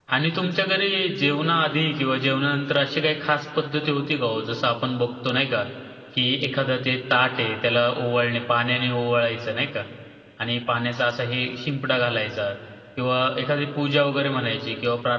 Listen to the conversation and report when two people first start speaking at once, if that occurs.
none

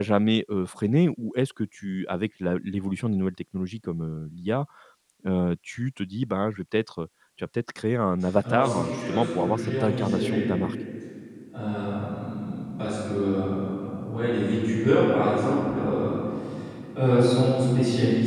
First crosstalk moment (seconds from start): 8.4 s

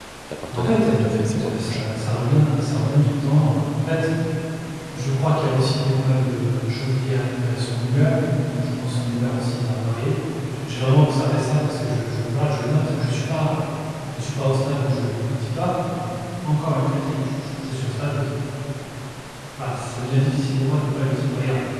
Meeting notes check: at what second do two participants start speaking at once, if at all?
0.5 s

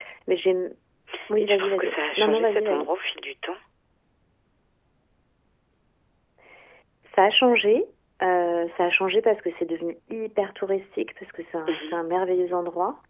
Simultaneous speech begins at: 1.4 s

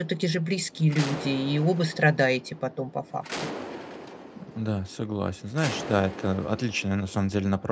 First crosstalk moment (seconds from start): none

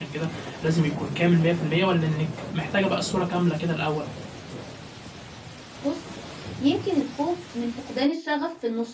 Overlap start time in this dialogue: none

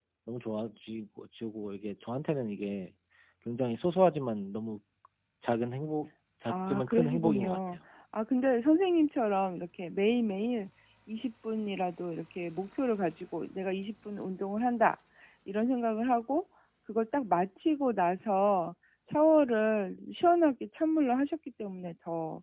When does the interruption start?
6.5 s

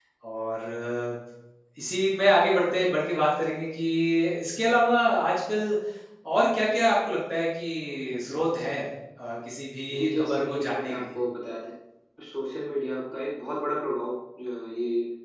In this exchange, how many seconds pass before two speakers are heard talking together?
9.9 s

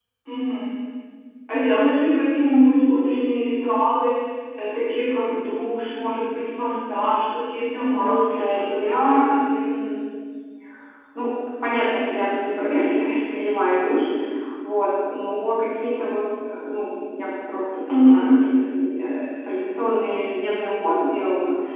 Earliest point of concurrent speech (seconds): 7.9 s

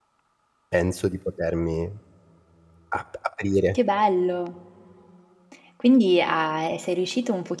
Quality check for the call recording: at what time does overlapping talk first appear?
none

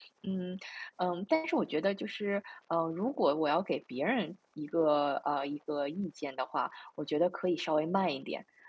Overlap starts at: none

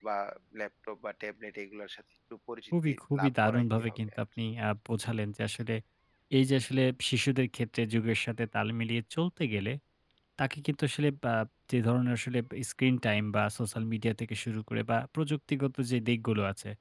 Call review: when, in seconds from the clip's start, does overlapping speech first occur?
2.7 s

